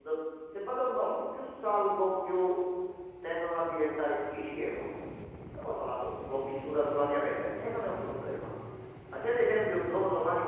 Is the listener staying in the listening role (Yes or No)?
Yes